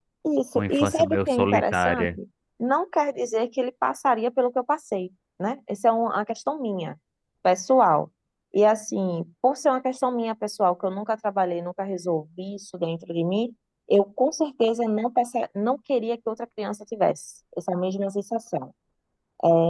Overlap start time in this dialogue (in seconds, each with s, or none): 0.6 s